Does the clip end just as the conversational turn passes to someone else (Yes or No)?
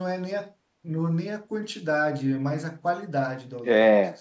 Yes